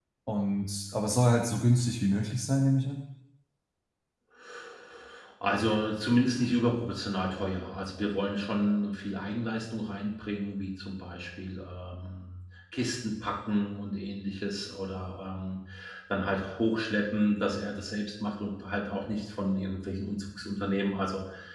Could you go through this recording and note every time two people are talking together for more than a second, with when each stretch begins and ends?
none

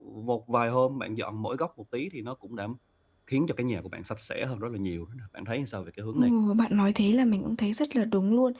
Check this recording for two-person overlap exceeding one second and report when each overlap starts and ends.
none

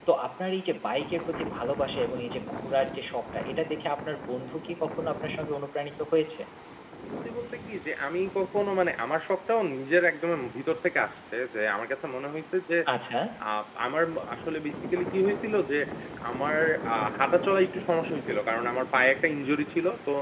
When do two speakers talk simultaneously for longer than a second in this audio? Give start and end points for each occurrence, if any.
none

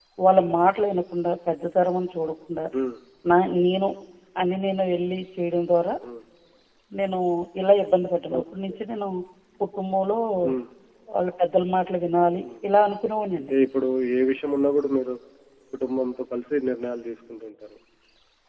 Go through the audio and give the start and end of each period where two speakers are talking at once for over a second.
none

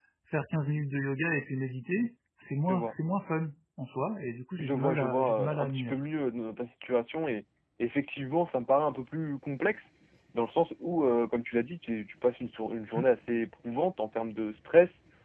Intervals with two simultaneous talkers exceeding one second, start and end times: 4.6-6.0

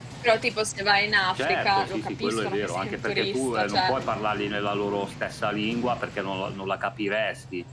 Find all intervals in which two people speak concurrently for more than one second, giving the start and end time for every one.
1.4-3.9

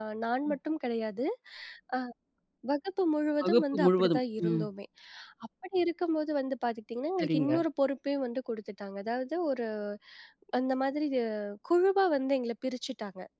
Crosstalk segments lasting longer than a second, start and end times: 3.4-4.6

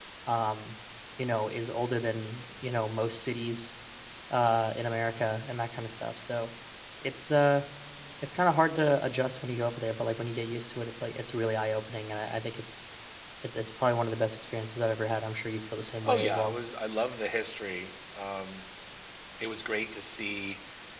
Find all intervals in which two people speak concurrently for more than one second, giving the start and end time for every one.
none

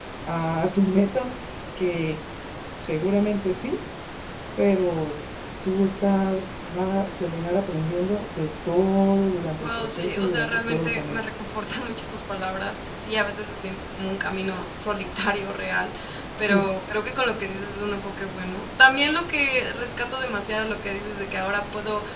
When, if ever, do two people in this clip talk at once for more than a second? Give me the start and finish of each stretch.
9.6-11.2

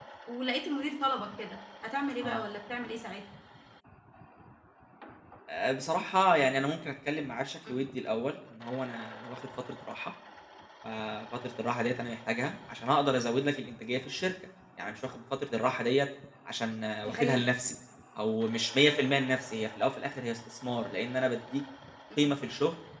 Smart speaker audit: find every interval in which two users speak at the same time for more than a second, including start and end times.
none

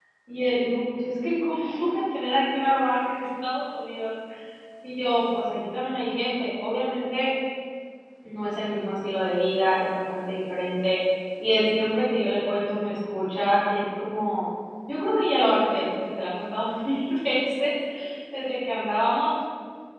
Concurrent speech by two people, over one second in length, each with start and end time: none

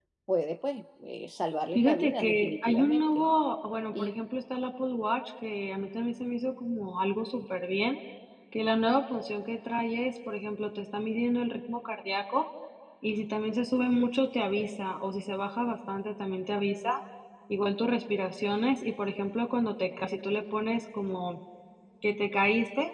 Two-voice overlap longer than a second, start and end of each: 1.8-3.2

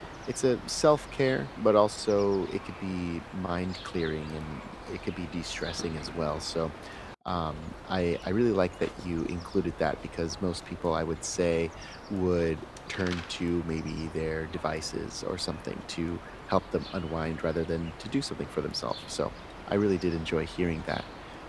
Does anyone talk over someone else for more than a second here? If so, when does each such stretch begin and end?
none

